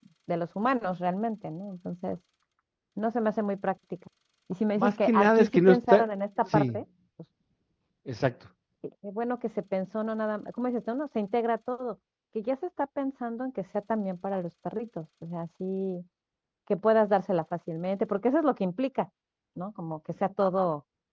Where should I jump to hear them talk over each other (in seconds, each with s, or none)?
4.8 s